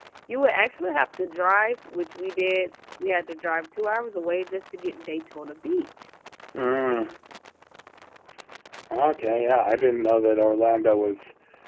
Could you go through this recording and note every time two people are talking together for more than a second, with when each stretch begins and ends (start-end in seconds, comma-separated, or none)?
none